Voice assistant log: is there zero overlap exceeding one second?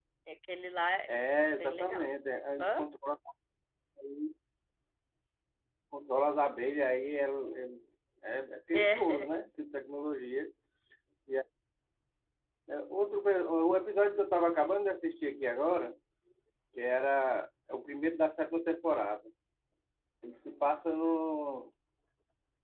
Yes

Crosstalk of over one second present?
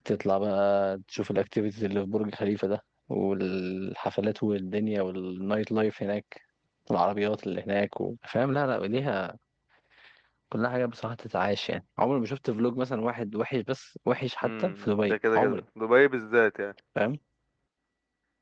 Yes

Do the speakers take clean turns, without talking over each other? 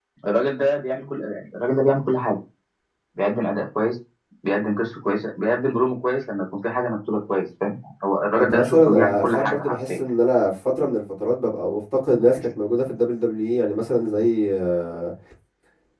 No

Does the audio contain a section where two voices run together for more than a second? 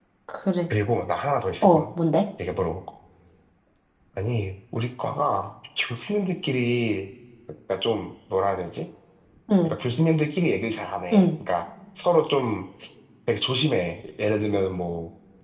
No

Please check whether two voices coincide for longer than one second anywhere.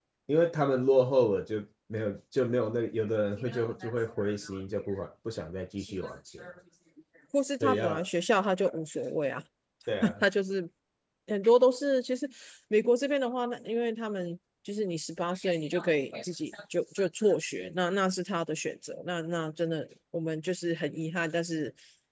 No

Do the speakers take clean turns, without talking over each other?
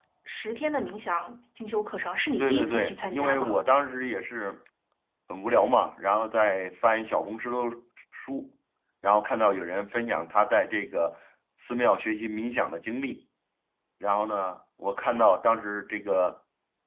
No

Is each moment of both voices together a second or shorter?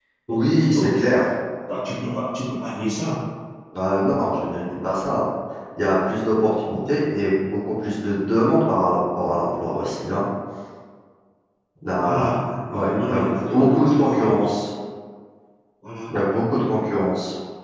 No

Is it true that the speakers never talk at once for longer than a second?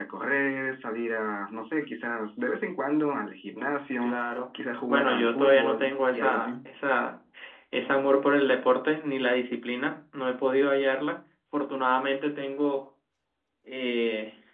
No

